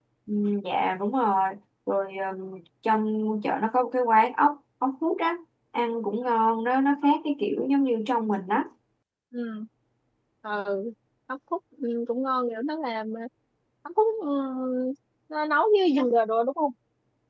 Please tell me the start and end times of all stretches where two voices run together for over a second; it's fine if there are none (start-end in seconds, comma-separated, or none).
none